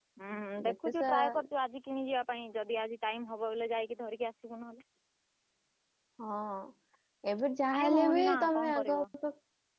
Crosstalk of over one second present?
Yes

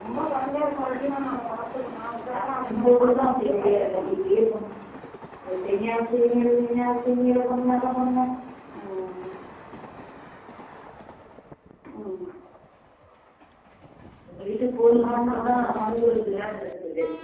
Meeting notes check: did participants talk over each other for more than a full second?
Yes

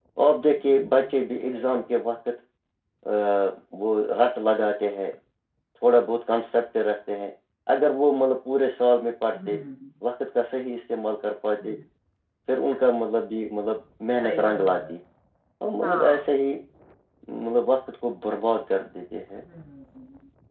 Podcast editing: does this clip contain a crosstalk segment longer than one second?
Yes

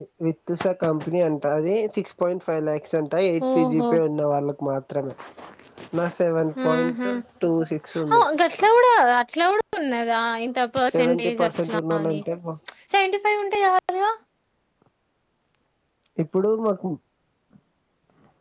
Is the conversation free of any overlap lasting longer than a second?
No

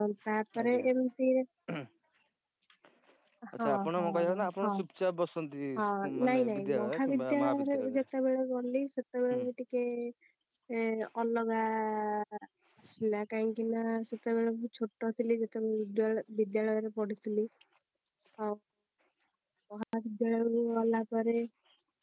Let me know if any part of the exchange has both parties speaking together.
Yes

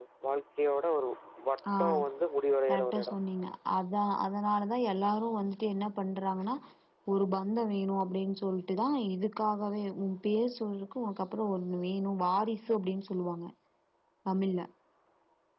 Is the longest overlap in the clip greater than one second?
No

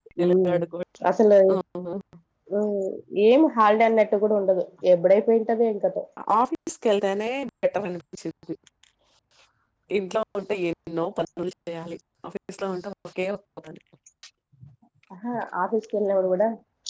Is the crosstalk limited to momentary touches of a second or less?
Yes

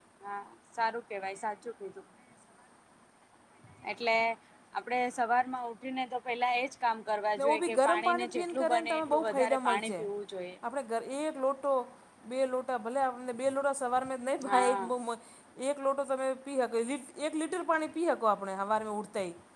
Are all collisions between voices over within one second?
No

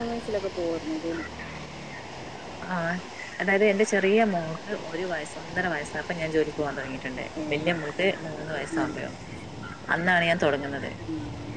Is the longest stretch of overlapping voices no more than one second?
Yes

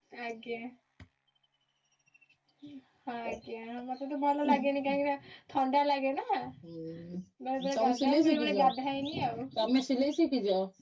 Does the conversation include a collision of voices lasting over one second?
Yes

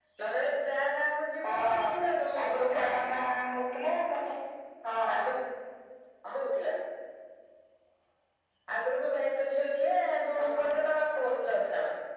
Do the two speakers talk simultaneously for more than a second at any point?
Yes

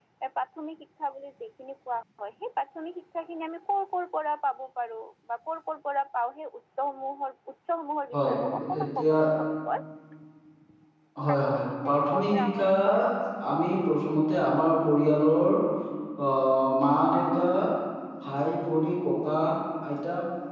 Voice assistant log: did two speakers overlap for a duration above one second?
Yes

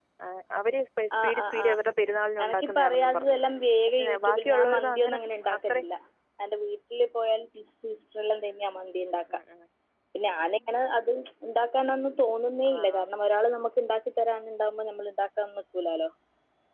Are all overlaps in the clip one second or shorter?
No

